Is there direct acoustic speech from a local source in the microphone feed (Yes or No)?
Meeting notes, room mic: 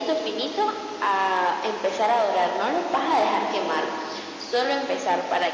No